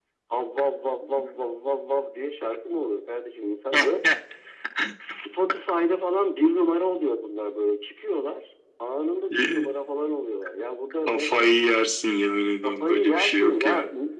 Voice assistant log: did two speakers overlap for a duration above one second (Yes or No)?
Yes